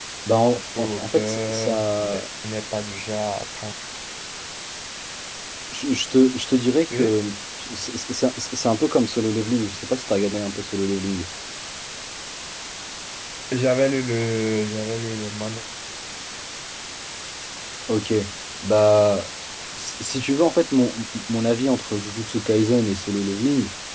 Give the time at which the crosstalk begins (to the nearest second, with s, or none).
1 s